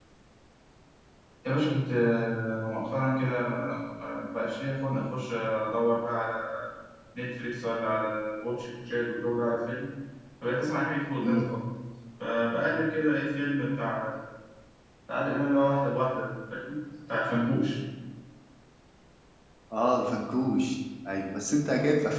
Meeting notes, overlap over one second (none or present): none